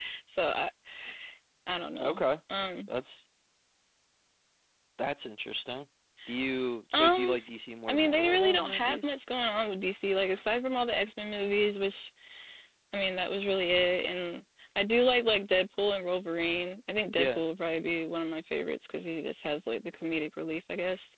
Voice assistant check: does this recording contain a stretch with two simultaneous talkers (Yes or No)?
Yes